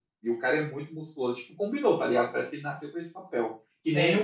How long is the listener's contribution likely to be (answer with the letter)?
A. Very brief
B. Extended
A